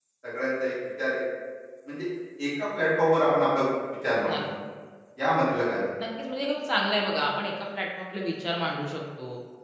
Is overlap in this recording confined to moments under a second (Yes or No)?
Yes